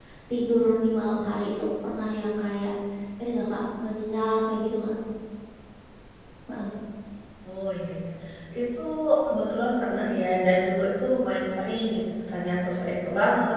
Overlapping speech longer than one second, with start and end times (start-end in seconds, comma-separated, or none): none